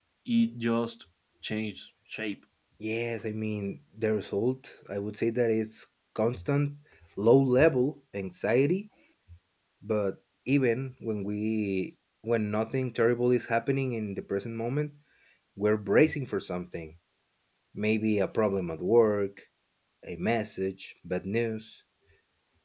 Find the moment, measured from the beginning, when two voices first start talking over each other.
none

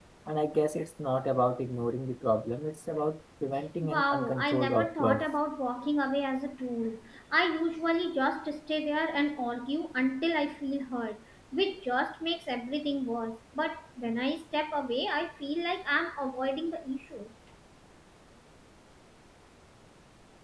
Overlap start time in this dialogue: 3.8 s

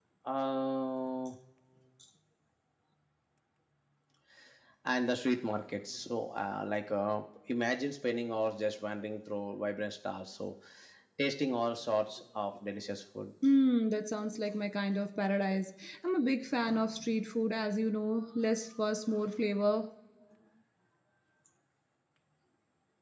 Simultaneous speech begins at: none

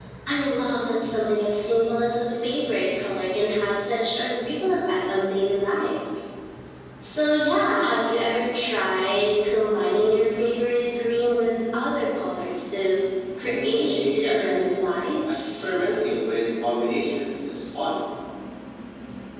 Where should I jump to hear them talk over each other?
13.4 s

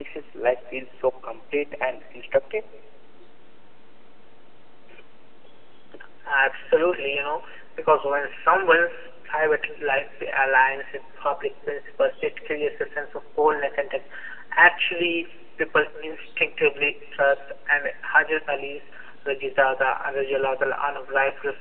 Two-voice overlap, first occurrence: none

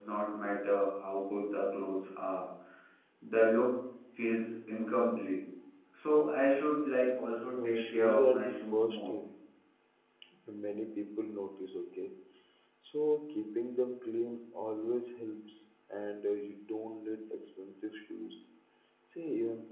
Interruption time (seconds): 7.6 s

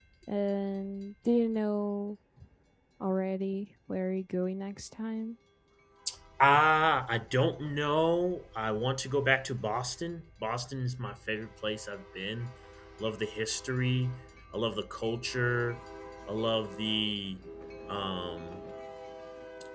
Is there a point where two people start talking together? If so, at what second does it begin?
none

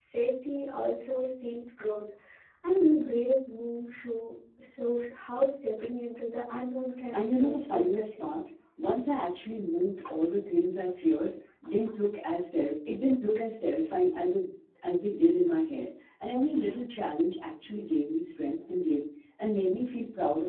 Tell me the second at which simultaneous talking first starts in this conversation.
7.1 s

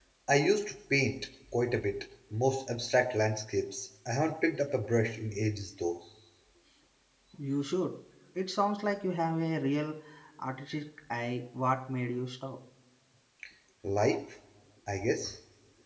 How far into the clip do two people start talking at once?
none

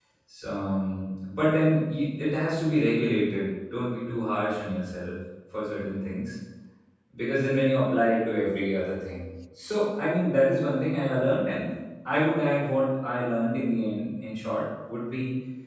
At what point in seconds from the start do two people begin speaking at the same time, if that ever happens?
none

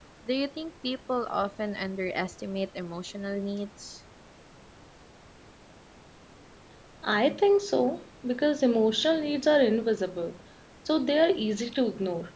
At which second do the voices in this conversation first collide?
none

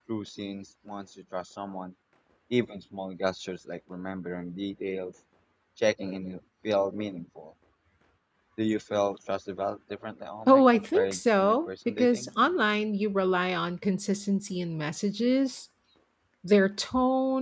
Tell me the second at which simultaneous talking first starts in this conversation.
10.5 s

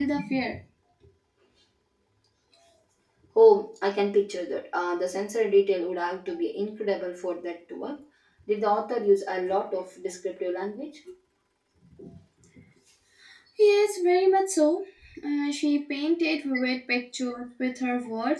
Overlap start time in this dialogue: none

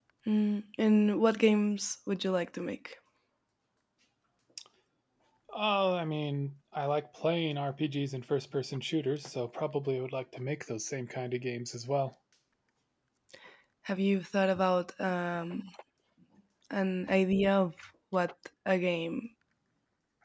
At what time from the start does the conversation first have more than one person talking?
none

